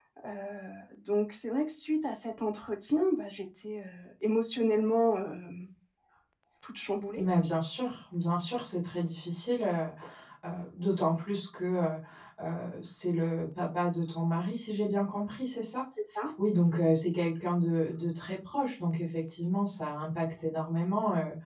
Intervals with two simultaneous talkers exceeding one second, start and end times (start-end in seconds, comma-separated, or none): none